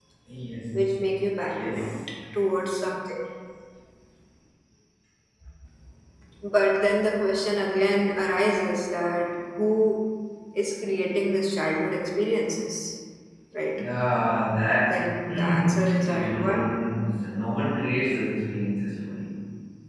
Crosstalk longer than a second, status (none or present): present